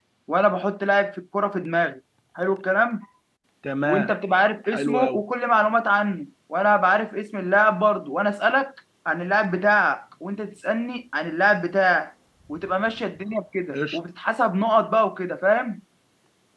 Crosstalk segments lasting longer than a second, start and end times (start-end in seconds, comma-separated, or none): none